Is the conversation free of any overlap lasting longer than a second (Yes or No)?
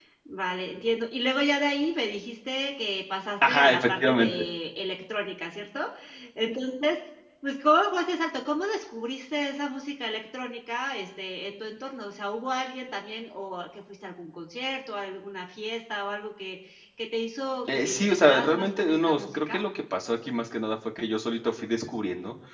No